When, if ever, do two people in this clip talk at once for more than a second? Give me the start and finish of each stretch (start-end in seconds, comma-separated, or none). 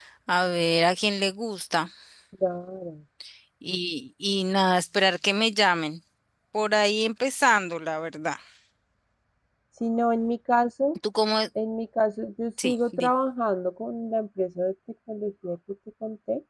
none